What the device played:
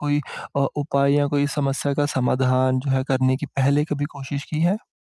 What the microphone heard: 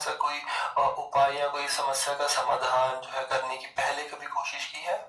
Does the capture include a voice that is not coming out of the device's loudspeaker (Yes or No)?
No